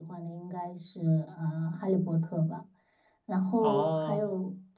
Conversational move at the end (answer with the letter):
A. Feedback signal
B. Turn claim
A